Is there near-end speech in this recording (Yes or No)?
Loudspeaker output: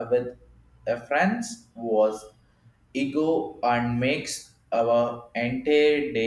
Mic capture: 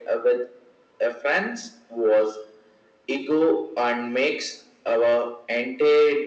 No